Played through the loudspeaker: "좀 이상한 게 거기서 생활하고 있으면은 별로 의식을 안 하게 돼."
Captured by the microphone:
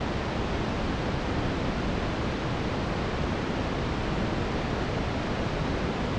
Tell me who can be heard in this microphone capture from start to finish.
neither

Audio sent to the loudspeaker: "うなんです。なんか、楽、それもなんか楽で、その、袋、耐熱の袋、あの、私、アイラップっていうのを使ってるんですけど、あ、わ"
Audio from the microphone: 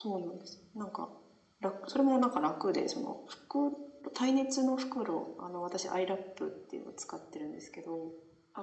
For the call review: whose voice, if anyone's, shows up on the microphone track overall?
echo only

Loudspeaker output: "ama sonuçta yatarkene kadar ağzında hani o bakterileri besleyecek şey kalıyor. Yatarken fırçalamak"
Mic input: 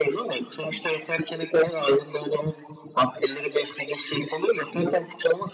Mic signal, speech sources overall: echo only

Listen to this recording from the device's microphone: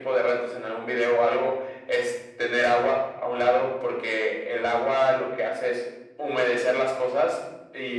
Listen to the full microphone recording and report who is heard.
echo only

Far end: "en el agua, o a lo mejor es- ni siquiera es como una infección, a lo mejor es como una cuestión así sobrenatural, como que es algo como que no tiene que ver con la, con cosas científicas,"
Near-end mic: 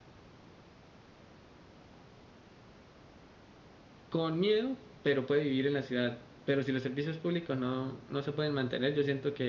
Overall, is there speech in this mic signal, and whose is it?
user only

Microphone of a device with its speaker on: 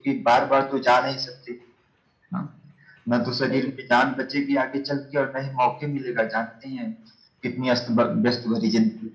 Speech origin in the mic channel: echo only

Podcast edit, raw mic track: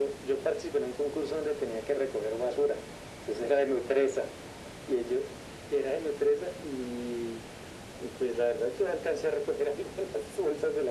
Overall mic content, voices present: echo only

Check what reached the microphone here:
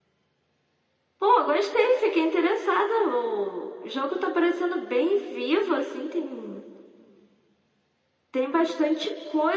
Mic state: echo only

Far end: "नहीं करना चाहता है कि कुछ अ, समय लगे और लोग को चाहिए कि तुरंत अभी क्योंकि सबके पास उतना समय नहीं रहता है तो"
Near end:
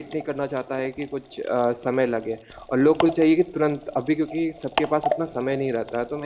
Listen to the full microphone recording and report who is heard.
echo only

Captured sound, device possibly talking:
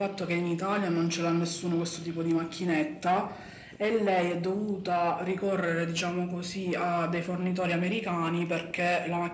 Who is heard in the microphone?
echo only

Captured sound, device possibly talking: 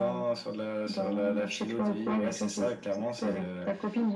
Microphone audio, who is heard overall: echo only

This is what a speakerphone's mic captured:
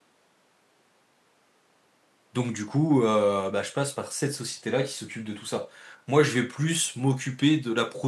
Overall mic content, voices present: user only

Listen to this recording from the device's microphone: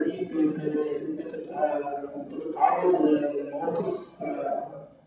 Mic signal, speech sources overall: echo only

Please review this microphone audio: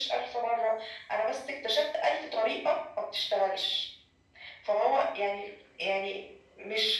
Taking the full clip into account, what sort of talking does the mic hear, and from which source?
echo only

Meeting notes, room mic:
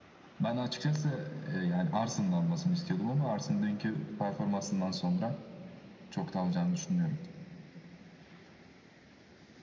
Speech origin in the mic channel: echo only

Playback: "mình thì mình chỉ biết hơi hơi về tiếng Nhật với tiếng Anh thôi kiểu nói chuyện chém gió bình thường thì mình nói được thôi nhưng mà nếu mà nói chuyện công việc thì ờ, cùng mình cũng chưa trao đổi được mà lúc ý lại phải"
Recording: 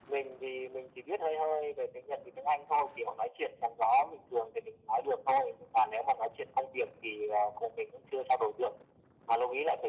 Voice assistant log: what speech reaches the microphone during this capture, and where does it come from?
echo only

